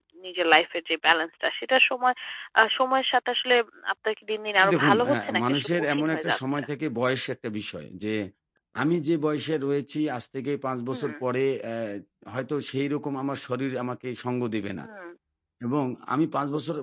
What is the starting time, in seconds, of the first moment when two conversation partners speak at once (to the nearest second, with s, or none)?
5 s